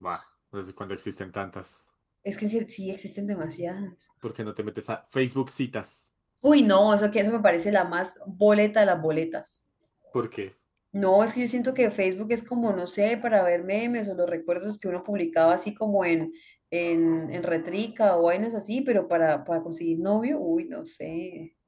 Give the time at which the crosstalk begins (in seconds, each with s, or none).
none